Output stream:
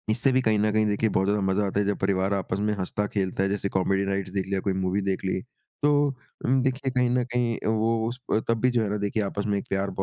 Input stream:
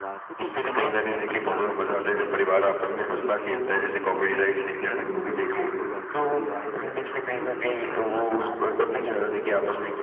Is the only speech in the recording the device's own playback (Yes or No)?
No